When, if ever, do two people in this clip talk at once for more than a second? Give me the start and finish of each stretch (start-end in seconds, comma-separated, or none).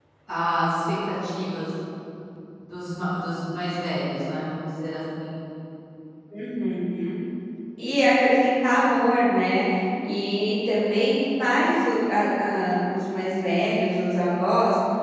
none